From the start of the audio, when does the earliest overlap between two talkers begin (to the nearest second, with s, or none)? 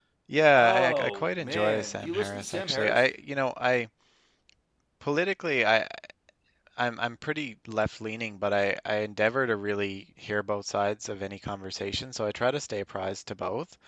1 s